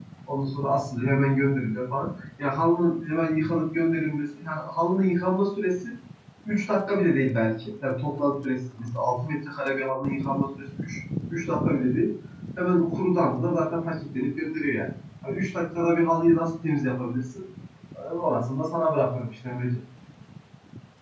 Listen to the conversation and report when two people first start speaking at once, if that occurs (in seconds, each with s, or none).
none